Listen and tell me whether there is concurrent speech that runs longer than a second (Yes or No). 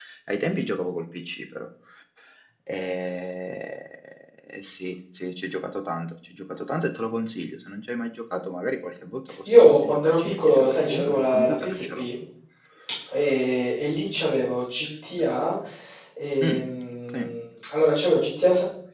Yes